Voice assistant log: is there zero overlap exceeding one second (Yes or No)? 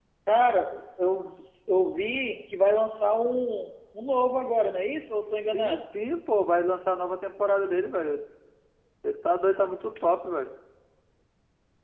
Yes